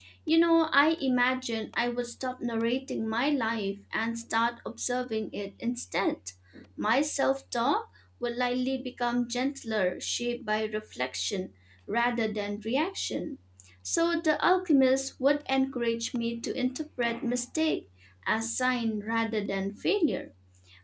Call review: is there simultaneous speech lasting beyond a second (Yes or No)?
No